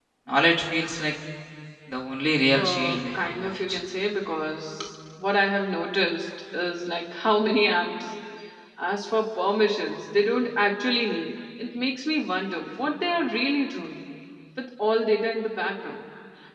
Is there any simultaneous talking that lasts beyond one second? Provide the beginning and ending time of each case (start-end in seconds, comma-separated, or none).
2.5-3.8